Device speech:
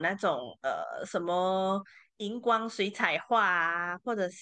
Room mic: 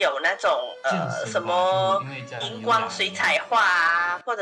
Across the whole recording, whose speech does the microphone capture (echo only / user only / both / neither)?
both